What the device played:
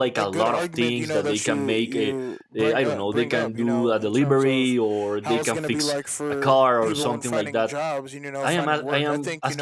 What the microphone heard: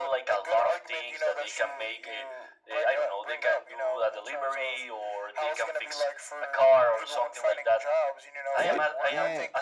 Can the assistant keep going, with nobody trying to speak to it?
No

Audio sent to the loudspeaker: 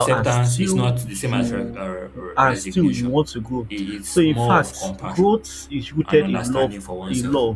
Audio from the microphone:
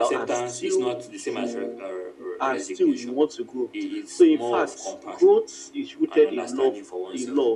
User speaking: No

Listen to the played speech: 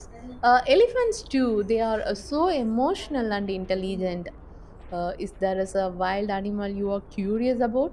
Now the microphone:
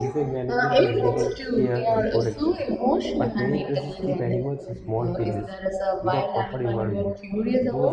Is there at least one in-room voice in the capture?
Yes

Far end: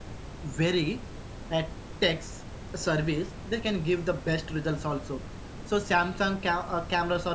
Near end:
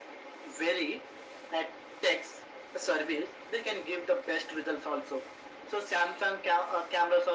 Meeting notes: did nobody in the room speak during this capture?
Yes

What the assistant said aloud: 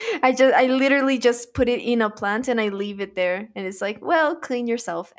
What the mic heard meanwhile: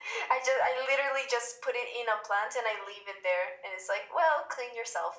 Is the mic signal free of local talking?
Yes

